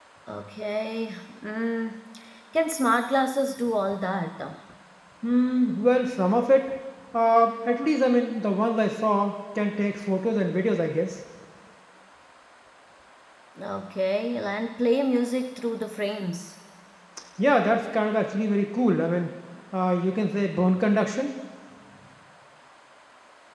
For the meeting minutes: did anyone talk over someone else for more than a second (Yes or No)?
No